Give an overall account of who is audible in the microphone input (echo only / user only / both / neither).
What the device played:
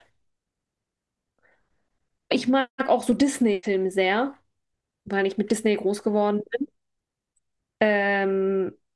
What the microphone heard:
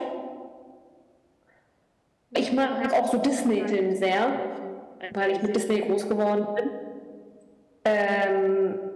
both